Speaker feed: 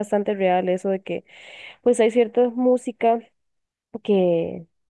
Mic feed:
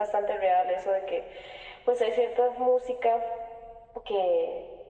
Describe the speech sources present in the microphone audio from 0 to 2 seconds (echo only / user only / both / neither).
echo only